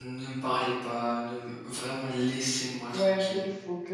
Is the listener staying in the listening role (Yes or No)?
No